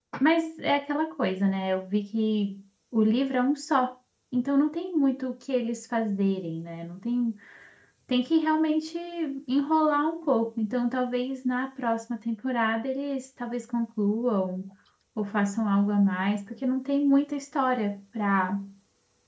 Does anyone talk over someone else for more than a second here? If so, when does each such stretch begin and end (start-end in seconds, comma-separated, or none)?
none